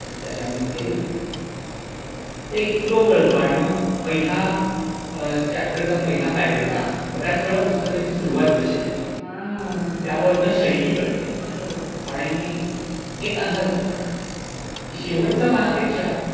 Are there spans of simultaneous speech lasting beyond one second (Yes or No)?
No